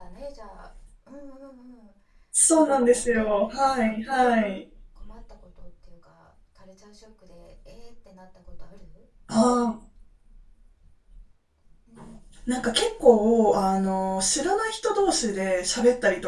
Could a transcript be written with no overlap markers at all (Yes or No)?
No